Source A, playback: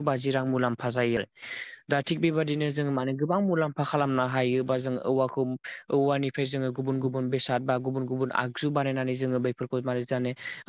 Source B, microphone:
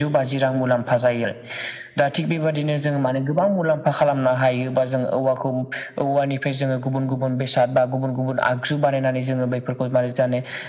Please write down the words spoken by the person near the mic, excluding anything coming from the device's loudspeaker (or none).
none